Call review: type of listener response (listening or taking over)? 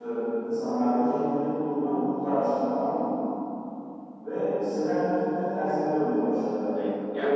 taking over